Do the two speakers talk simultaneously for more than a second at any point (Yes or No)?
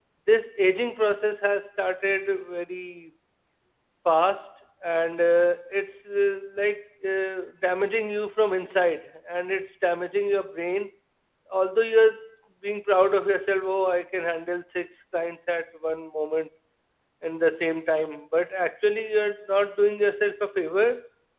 No